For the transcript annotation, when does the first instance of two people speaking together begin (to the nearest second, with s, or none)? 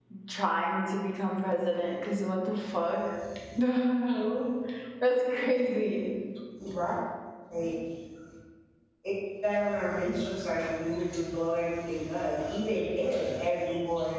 none